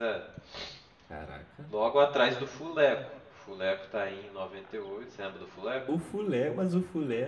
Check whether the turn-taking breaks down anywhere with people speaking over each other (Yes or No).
No